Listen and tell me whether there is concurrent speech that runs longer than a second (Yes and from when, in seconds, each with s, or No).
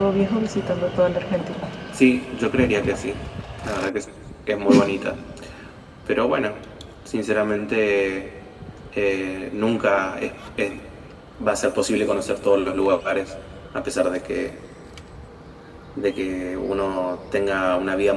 No